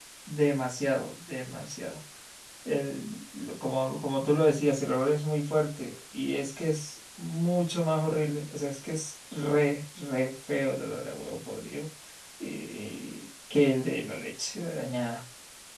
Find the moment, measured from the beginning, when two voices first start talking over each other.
none

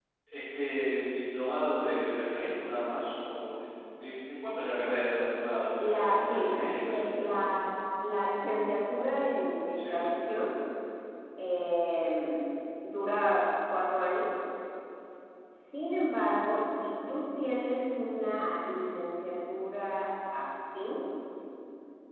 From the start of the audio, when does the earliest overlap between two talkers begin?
6 s

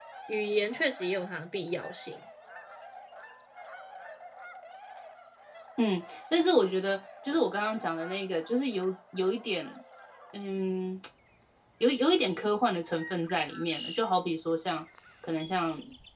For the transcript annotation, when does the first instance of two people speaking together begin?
none

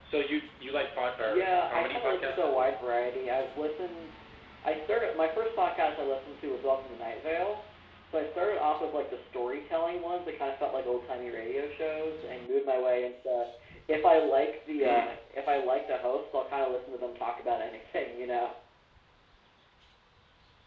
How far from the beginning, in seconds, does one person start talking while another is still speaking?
1 s

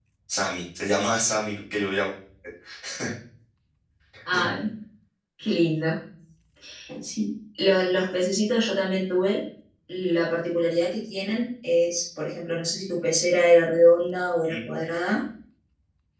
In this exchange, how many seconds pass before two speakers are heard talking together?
none

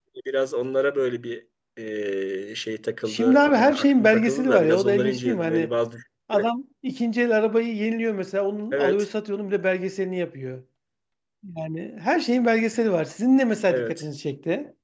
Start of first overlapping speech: 3 s

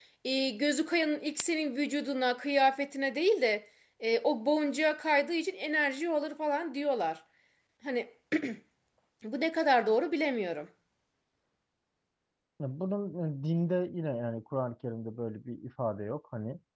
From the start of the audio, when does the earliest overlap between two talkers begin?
none

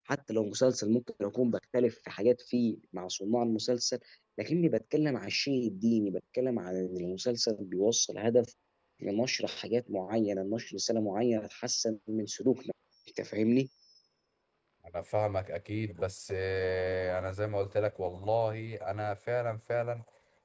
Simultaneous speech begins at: none

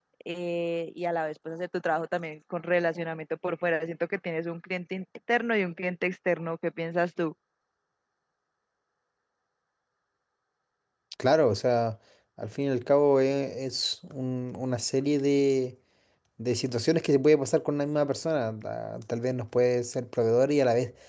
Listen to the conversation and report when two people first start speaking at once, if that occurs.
none

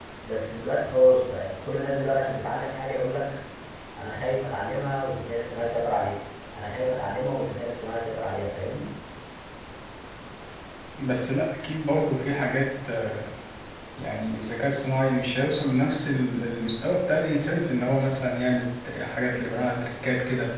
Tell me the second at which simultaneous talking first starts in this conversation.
none

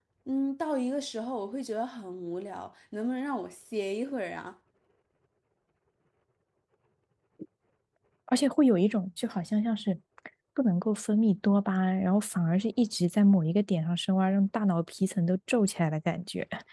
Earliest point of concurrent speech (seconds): none

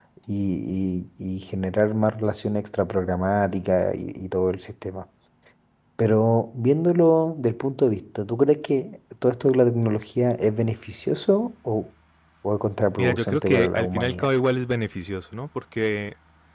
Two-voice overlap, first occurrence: 13 s

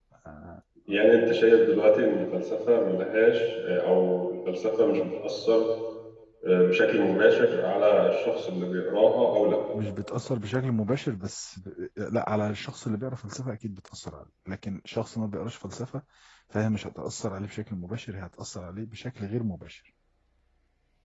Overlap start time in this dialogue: none

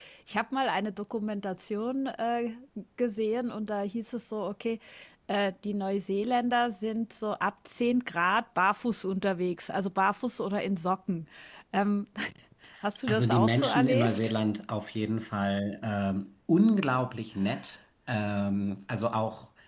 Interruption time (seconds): 13 s

